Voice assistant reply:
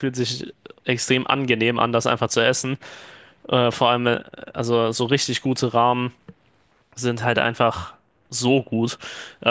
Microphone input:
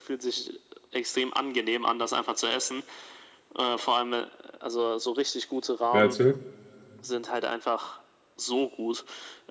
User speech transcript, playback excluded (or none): wer erzählt?